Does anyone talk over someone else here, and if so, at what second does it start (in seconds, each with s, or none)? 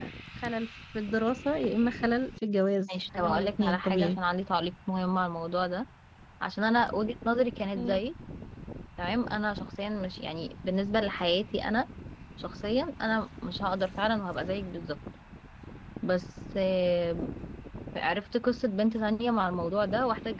2.9 s